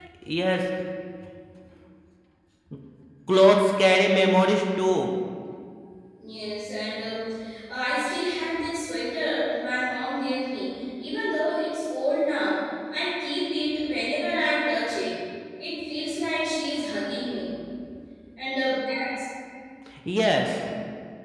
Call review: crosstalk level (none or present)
none